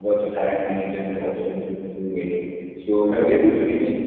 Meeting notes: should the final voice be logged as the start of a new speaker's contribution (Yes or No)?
No